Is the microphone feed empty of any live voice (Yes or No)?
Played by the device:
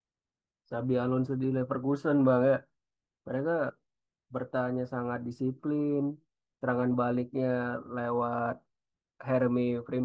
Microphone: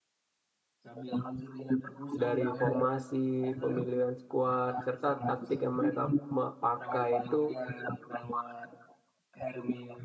No